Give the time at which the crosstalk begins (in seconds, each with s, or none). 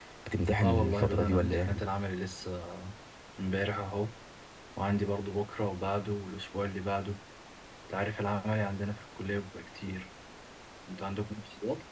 0.6 s